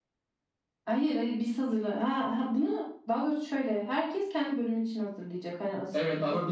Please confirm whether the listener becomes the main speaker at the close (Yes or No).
Yes